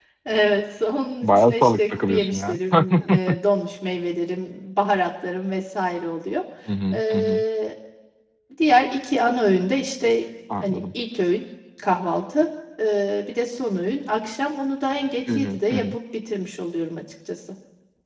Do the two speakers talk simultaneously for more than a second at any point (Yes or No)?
Yes